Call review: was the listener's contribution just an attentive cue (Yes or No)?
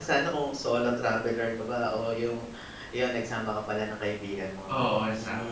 No